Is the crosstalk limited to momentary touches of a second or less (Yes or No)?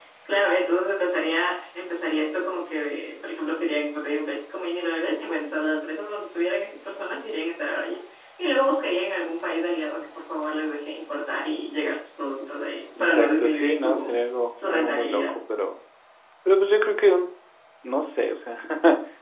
No